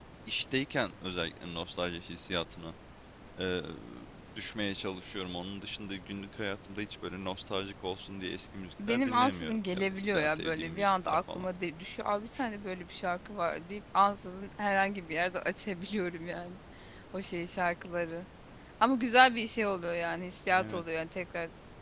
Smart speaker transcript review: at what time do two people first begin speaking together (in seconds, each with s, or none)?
8.9 s